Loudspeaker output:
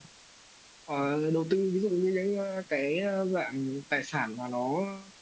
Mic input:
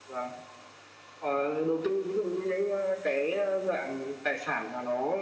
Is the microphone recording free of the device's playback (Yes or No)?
No